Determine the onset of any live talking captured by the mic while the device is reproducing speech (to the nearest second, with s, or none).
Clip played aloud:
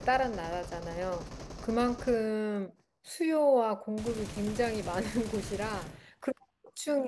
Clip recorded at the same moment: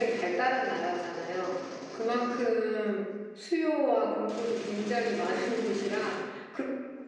none